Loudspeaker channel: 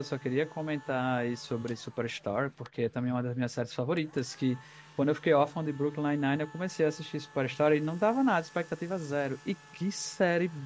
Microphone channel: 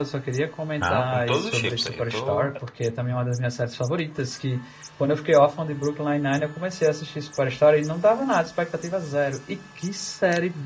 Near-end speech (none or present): present